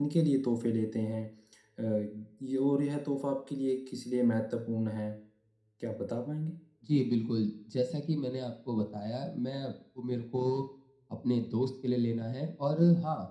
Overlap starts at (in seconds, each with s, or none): none